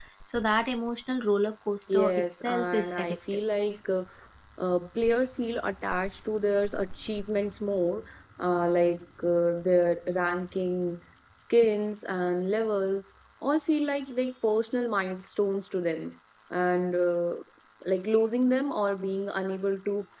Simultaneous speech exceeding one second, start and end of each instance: 1.9-3.4

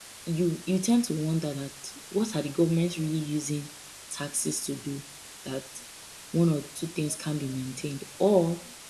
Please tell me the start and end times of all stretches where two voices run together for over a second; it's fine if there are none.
none

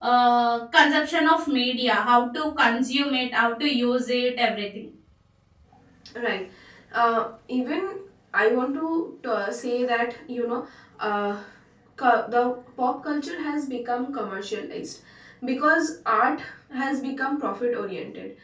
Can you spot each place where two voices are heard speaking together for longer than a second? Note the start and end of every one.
none

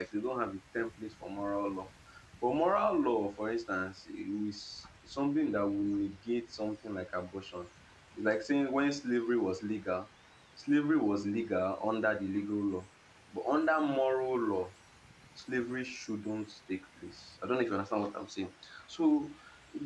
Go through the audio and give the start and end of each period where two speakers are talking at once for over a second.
none

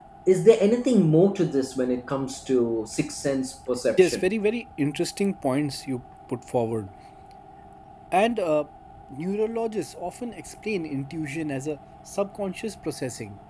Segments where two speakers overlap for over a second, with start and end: none

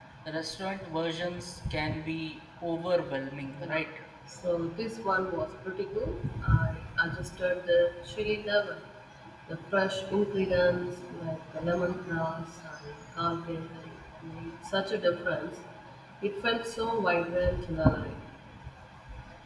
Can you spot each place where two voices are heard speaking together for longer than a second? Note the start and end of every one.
none

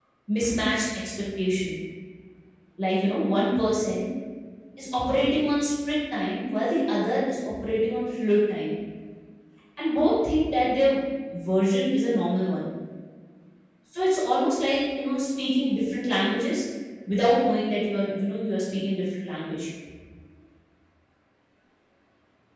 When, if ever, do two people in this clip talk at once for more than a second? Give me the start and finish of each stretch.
none

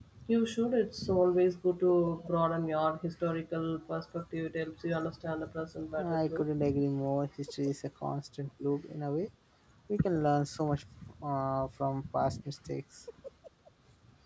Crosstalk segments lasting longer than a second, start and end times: none

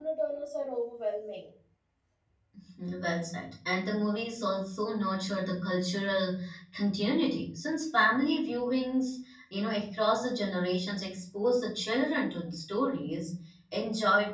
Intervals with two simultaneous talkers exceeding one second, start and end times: none

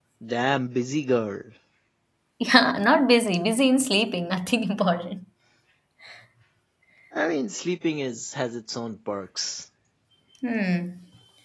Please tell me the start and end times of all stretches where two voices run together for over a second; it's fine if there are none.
none

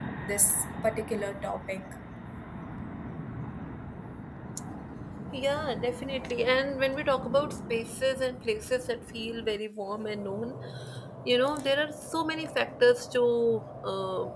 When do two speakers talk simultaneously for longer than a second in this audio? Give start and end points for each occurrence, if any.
none

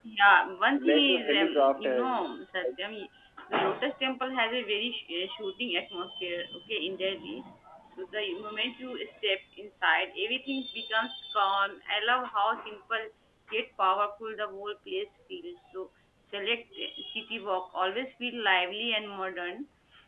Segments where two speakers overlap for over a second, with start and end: 0.8-2.3

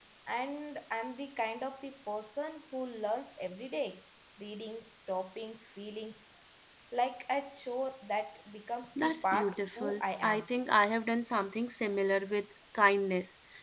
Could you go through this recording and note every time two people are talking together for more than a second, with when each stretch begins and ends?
9.0-10.5

